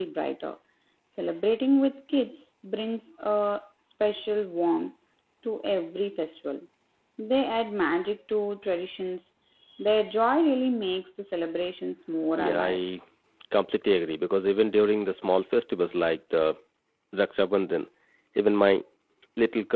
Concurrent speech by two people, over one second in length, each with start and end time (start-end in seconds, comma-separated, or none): none